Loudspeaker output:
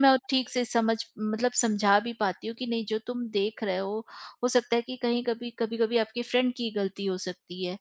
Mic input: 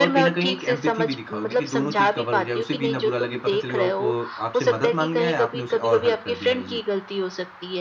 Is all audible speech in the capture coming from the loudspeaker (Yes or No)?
No